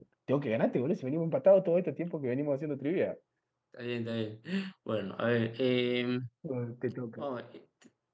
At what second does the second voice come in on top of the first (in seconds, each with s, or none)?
none